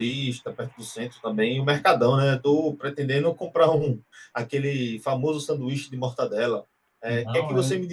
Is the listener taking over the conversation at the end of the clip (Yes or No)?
No